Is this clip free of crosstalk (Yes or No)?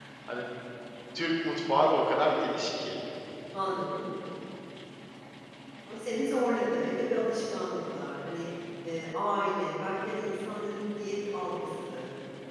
Yes